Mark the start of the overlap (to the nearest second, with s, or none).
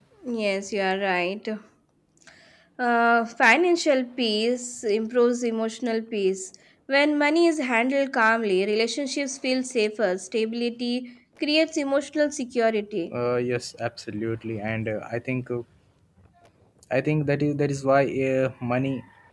none